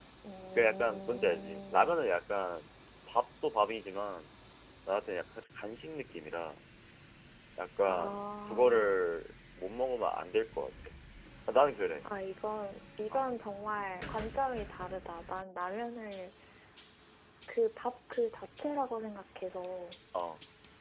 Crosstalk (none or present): present